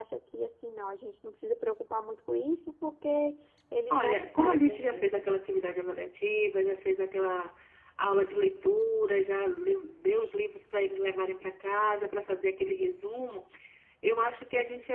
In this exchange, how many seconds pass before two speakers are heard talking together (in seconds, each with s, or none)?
3.9 s